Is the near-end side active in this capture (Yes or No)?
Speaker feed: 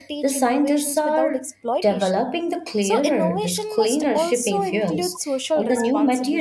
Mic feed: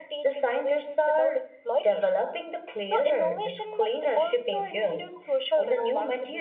No